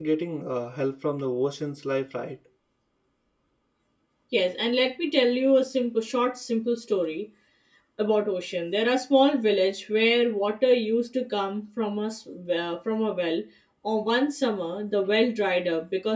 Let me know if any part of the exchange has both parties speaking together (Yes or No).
No